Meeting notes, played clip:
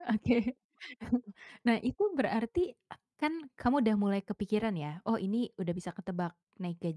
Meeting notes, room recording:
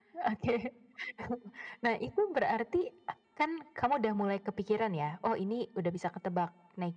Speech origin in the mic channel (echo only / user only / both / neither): echo only